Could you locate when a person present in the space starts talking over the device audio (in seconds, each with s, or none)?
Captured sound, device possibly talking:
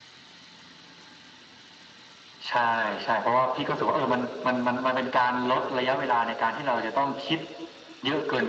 none